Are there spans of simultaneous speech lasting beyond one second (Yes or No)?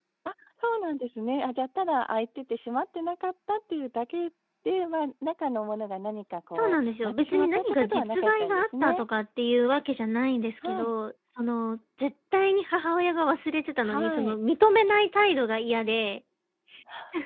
Yes